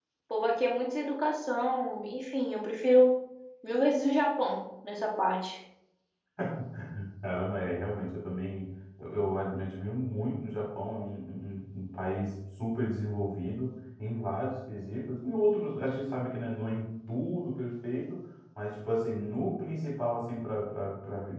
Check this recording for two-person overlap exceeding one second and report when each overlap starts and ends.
none

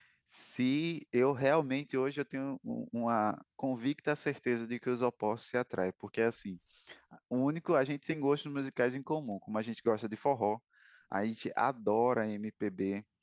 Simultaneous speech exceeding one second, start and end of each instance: none

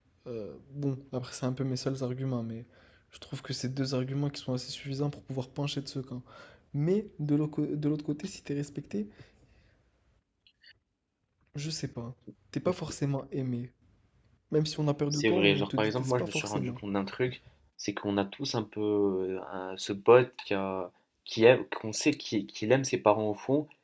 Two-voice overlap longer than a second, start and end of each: 15.1-16.8

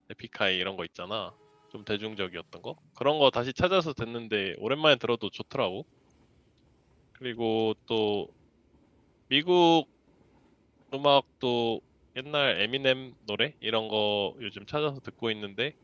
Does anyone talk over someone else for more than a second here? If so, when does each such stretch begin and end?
none

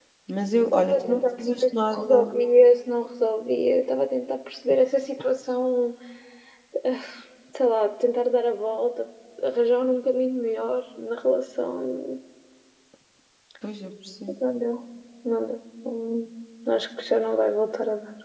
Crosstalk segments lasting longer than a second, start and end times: 0.7-2.3

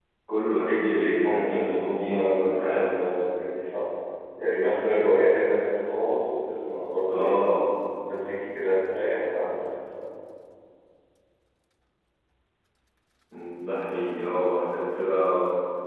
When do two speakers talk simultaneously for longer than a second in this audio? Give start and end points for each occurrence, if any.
0.6-2.9

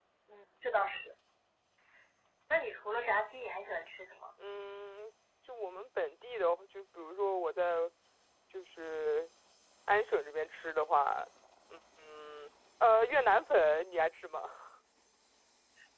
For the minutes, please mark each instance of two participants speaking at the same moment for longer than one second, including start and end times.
none

